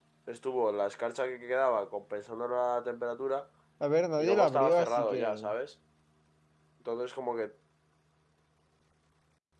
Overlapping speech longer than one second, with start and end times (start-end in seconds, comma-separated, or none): 4.2-5.5